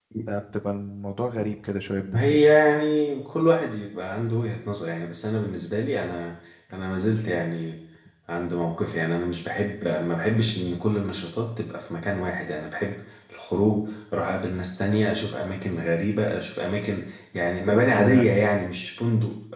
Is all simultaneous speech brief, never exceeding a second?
Yes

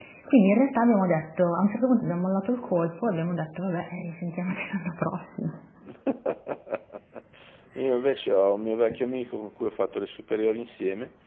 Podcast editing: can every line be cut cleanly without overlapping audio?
Yes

